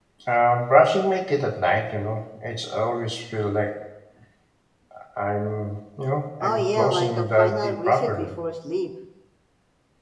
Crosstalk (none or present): present